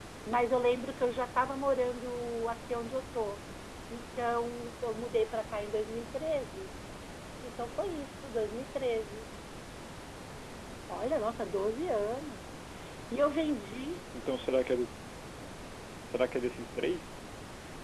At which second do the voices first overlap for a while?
none

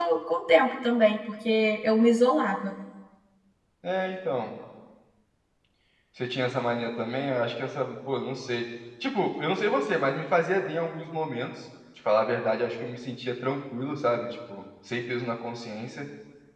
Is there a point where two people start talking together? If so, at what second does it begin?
none

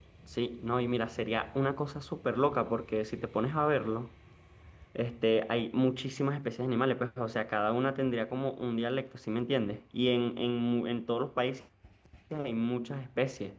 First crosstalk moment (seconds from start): none

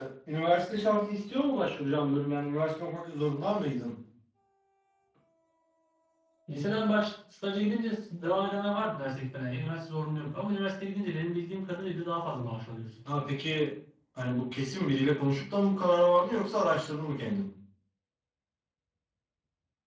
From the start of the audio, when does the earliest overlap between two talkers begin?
none

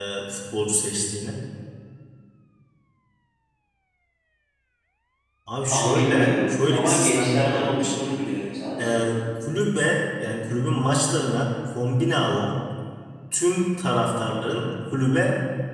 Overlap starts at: 6 s

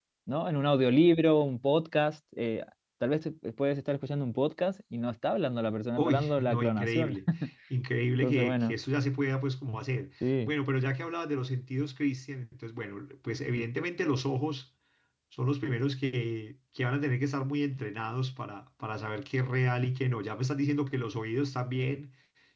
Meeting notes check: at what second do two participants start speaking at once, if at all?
6 s

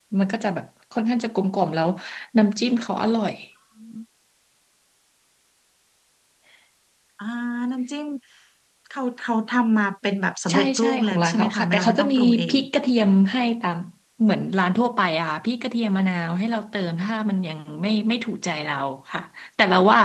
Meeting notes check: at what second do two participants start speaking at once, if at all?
10 s

